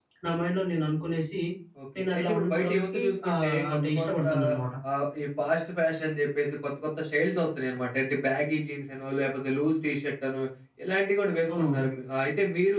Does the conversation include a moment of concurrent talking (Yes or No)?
Yes